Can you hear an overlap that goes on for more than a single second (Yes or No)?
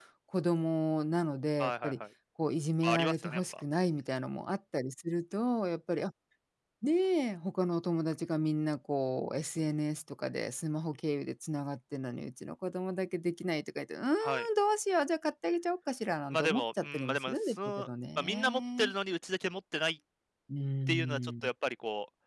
Yes